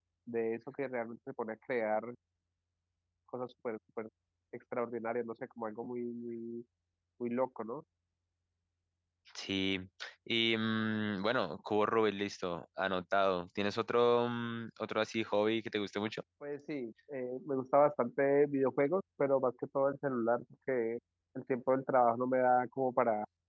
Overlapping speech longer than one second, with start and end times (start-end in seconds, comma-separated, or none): none